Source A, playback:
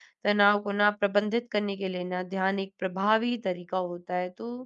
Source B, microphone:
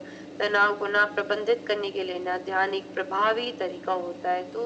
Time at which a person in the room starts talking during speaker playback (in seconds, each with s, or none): none